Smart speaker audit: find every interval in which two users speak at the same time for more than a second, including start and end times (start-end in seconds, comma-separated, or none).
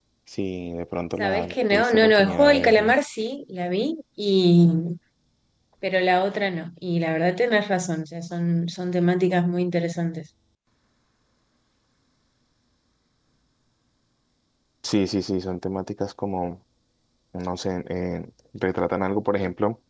1.2-2.9